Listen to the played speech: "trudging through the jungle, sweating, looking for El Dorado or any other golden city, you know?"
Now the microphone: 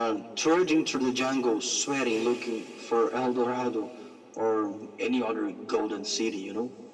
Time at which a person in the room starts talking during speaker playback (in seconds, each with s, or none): none